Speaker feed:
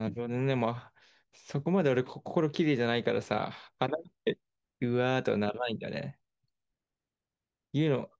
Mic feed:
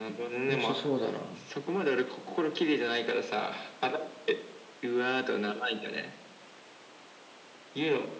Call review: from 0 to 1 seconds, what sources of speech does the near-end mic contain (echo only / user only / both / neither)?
both